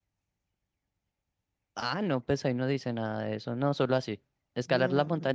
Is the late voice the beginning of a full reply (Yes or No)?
No